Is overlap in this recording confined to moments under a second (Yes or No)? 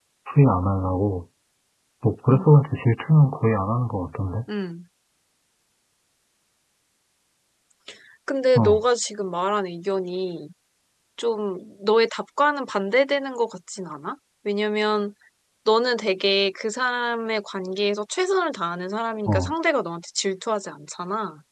Yes